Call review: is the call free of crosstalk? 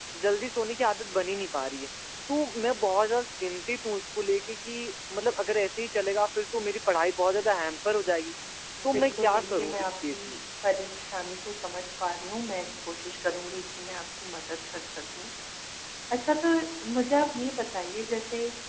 No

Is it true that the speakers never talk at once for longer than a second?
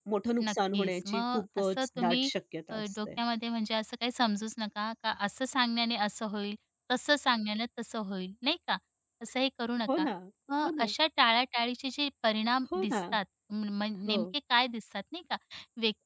No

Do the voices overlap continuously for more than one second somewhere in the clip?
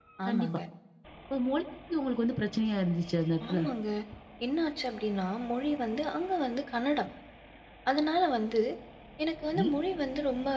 No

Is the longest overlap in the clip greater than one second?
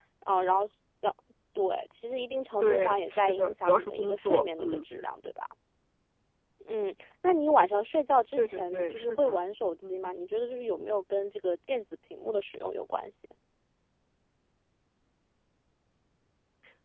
Yes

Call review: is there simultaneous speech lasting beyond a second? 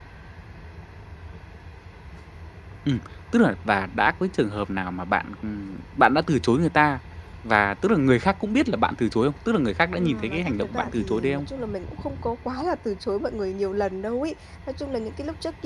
Yes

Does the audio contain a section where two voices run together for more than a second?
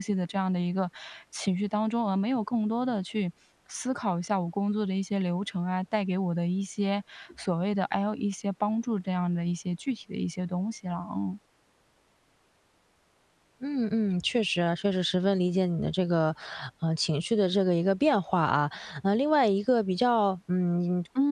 No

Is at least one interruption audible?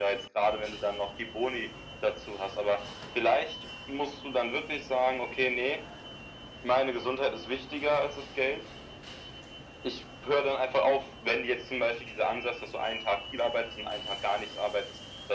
No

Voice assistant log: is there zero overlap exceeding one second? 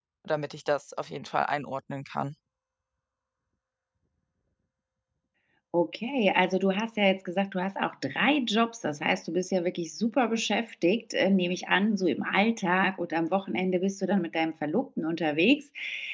Yes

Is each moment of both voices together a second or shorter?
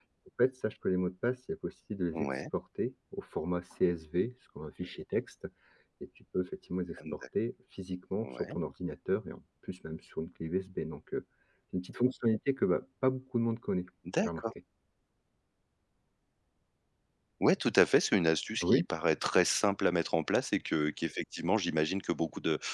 Yes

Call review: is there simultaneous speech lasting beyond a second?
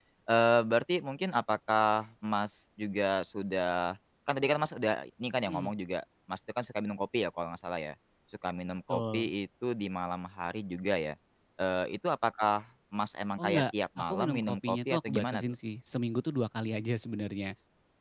Yes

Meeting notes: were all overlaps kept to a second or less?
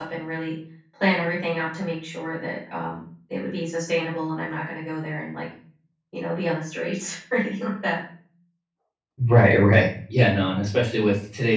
Yes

